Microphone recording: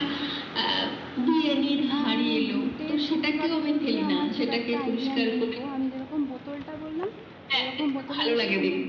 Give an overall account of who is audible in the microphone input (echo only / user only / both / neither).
both